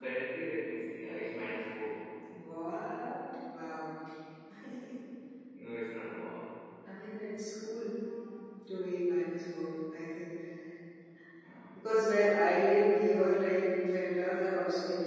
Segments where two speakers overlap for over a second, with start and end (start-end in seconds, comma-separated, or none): none